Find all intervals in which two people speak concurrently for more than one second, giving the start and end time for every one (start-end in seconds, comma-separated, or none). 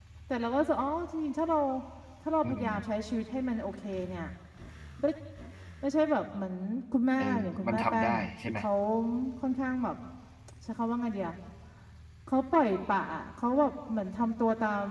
7.2-8.6